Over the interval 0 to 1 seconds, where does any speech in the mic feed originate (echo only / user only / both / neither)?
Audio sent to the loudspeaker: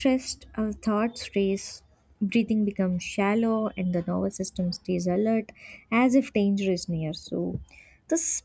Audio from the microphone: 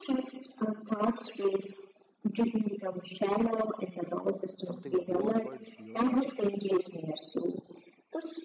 echo only